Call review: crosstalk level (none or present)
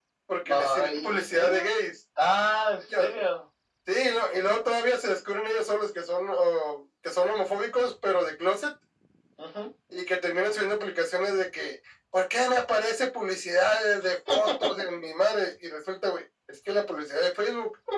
present